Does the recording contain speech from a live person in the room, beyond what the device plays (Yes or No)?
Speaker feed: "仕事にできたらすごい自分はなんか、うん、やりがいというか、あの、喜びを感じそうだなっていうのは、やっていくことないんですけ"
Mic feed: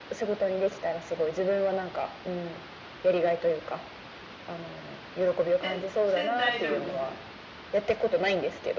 Yes